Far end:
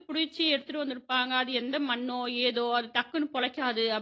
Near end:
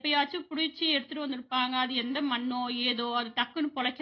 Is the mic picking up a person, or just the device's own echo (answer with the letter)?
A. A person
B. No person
B